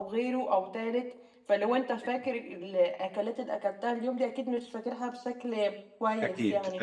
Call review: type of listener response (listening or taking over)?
taking over